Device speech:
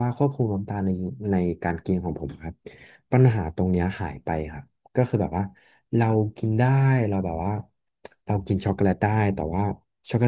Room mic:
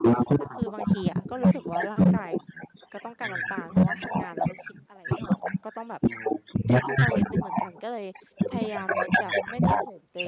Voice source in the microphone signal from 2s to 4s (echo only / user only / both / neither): both